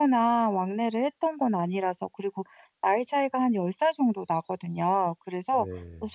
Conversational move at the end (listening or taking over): listening